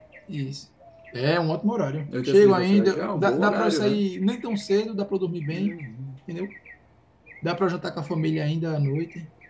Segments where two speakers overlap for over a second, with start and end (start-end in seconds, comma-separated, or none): 2.2-4.0